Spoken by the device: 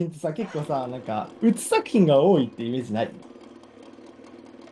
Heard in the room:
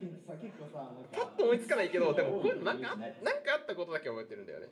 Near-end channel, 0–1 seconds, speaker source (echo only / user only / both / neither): echo only